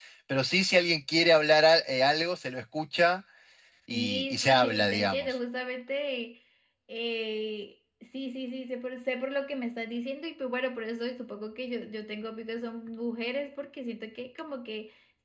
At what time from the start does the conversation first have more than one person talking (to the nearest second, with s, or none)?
4 s